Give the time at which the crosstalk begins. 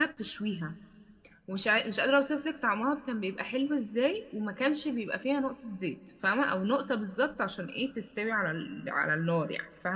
none

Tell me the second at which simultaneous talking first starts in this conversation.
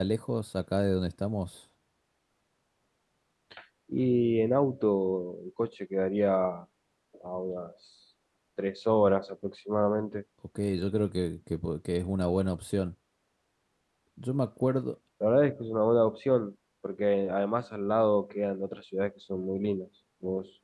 none

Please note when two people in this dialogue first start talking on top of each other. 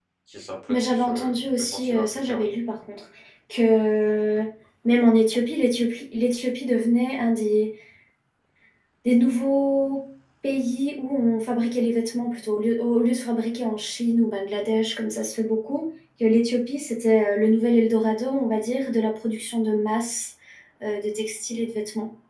0.7 s

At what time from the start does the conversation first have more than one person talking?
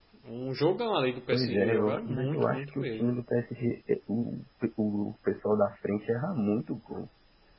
1.3 s

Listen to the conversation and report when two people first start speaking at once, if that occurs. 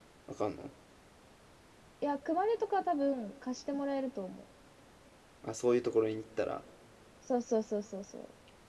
none

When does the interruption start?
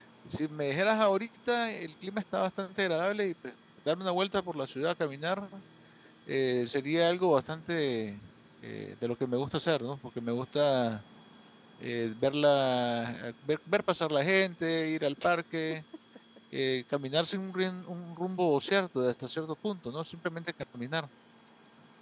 none

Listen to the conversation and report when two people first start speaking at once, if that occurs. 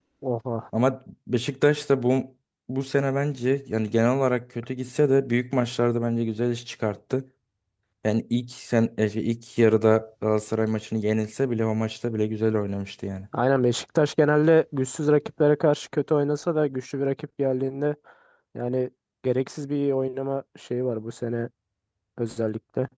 none

